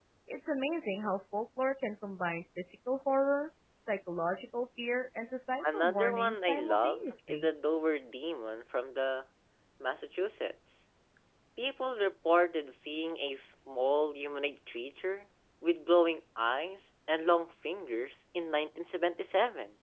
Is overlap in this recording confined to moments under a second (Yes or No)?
No